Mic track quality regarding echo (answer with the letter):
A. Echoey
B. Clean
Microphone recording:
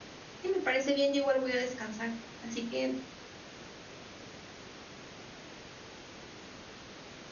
B